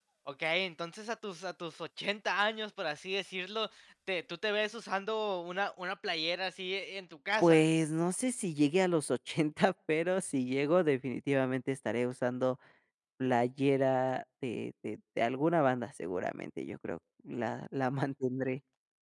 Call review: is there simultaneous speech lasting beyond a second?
No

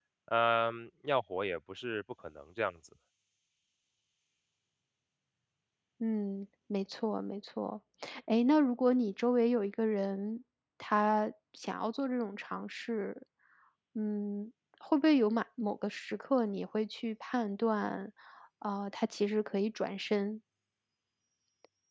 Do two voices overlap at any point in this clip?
No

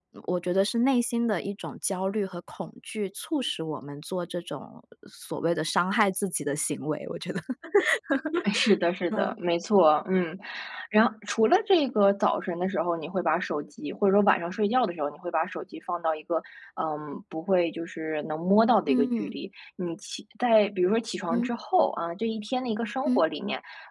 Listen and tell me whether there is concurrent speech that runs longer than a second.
No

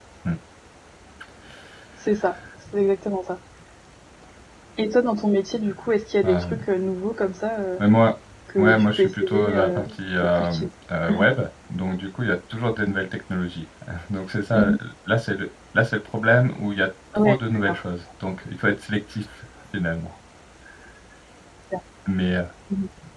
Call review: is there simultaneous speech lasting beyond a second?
Yes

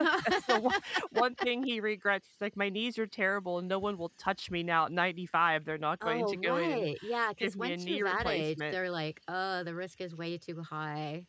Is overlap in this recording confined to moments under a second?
No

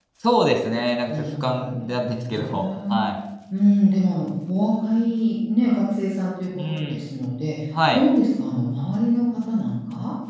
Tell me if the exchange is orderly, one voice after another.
No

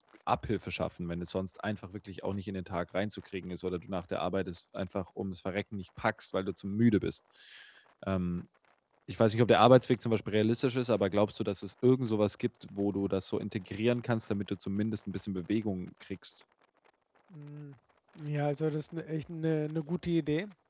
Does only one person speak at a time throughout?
Yes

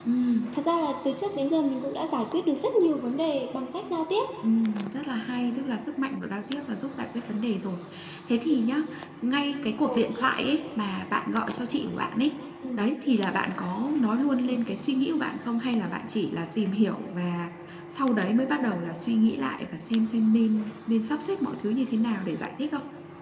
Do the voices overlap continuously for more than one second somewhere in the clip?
No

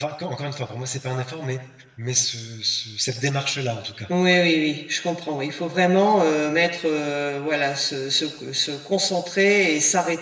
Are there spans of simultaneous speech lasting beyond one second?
No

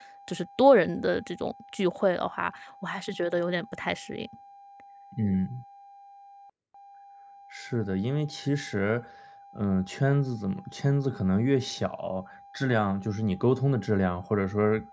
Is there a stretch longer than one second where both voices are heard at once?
No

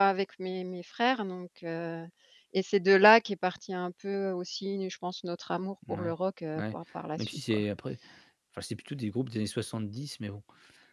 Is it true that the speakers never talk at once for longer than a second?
Yes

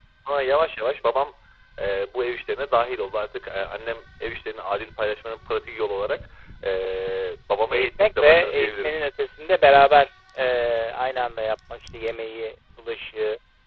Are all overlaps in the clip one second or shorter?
No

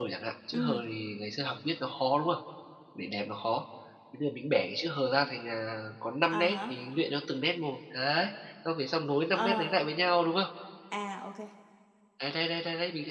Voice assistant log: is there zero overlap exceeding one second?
Yes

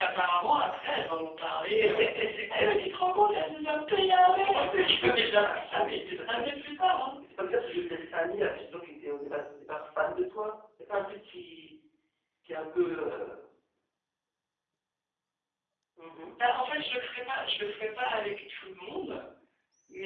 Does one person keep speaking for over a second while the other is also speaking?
Yes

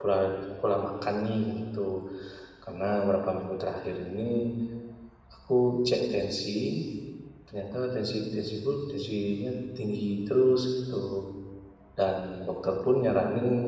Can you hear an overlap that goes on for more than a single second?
No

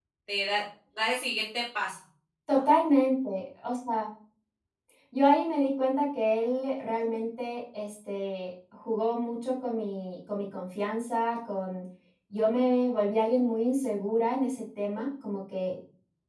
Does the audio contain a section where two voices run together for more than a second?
No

